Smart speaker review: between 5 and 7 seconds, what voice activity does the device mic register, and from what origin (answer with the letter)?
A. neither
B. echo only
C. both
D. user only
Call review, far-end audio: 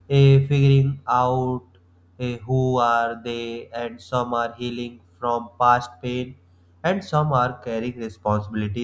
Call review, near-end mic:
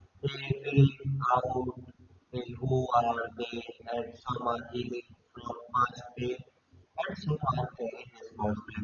B